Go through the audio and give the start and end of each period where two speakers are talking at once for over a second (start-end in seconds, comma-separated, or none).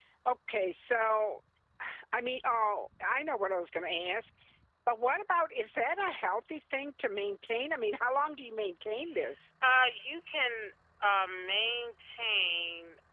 none